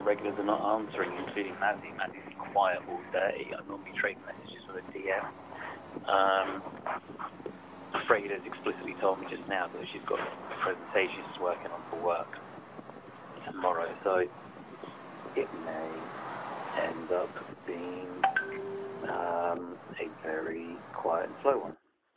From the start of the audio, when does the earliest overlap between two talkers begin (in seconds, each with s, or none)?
none